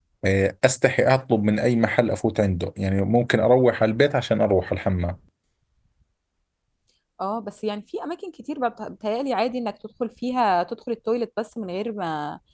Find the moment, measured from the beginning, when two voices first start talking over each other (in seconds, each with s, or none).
none